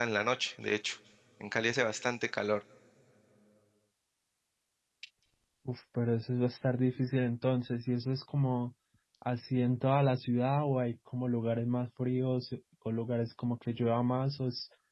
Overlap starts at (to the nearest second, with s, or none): none